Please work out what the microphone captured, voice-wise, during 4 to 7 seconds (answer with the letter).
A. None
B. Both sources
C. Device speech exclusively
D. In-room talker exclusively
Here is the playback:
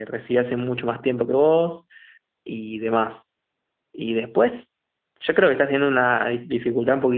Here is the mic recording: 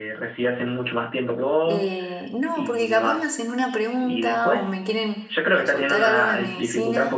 B